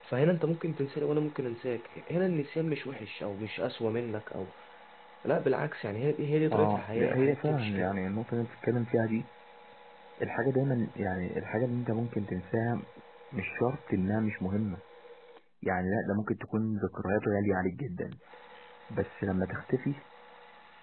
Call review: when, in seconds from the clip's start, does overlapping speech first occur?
7 s

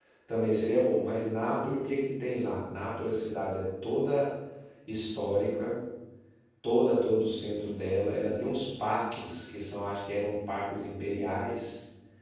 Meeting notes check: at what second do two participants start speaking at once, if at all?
none

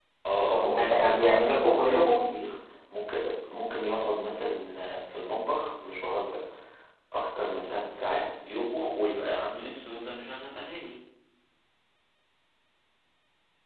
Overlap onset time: 1 s

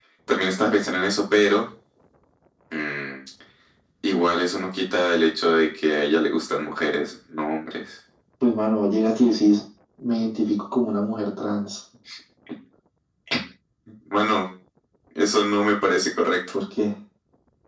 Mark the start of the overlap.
none

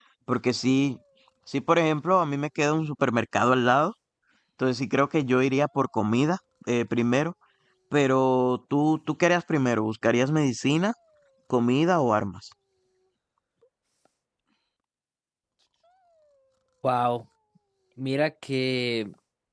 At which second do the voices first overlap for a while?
none

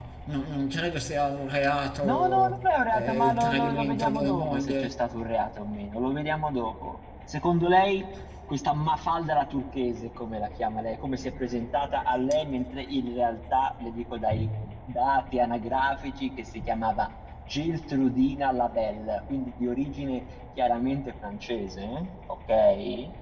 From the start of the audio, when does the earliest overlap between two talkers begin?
2 s

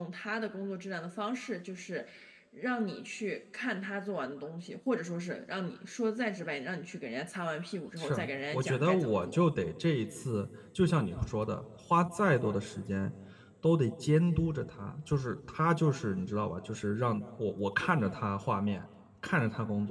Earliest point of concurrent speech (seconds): 8 s

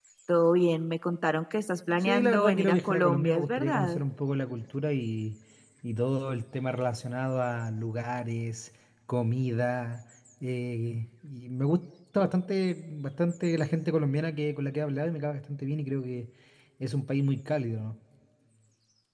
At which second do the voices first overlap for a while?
2 s

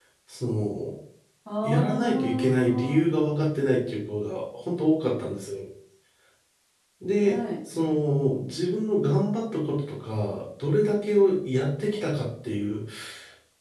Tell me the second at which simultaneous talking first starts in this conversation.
2 s

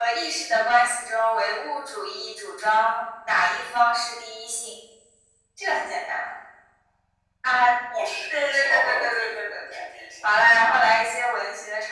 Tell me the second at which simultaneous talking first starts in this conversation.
8 s

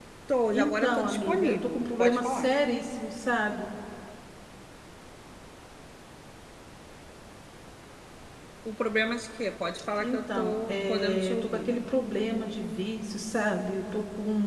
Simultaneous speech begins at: 1 s

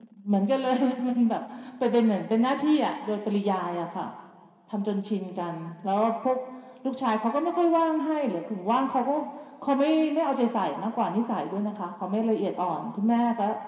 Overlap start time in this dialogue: none

